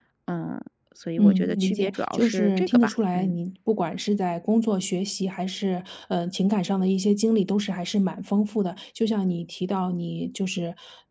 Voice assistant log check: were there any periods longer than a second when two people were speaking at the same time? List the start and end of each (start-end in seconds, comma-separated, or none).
1.2-3.4